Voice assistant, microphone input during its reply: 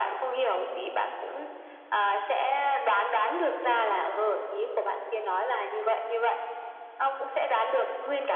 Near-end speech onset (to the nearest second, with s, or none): none